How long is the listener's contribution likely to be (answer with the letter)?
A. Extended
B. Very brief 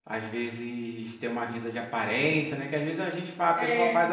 B